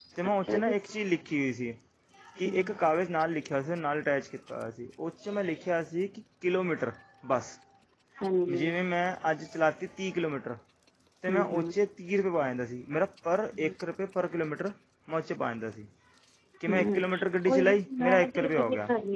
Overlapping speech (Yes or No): Yes